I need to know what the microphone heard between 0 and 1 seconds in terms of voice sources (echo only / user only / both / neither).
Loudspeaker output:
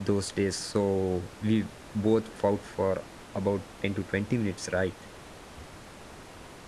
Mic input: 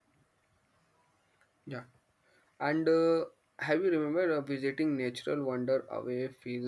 neither